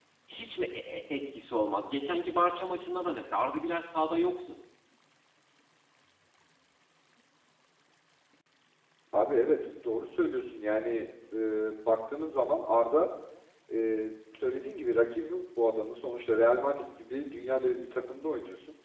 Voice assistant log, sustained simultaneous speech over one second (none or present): none